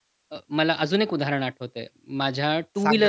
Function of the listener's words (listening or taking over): listening